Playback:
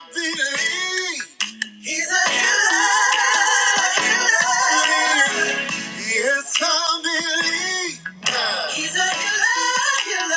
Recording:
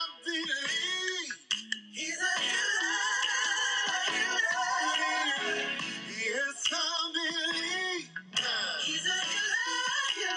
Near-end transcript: none

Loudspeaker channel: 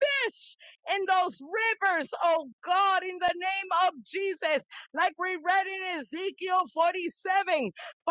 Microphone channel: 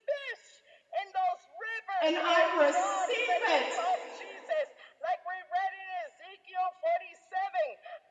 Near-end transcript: and I receive it

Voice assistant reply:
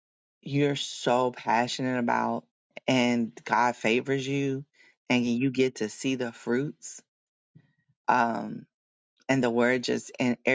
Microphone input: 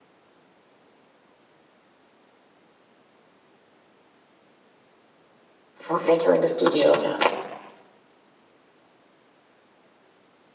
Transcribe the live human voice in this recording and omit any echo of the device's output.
I'm entering the studio now.

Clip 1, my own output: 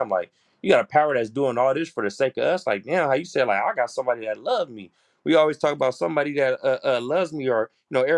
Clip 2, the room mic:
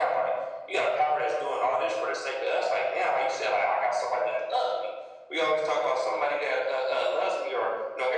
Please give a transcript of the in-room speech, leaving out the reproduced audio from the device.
none

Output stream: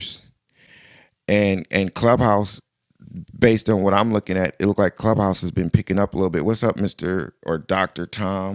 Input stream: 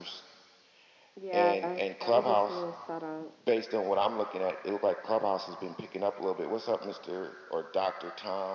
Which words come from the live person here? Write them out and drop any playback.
Yeah, that was a smooth setup.

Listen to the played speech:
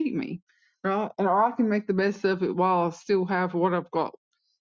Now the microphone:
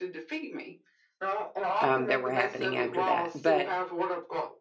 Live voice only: um, that were happening after that but

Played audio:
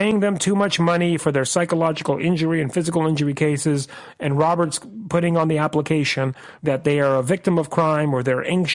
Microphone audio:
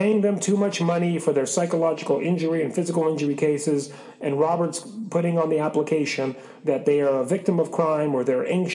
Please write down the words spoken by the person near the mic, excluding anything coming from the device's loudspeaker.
none

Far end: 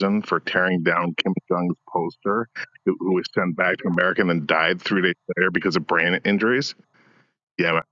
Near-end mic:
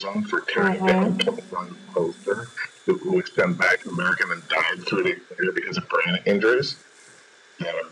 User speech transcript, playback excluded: Mhm.

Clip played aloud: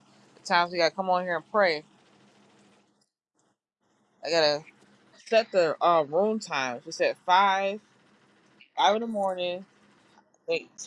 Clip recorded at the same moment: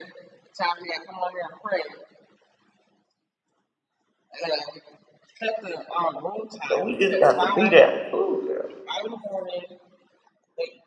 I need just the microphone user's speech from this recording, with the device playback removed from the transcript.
So we just got to be there. Ooh, girl.

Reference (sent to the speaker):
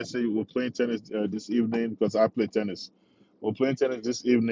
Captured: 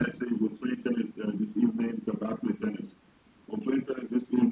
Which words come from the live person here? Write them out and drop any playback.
none

